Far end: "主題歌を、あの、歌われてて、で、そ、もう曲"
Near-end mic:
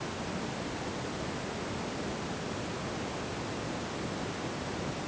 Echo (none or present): none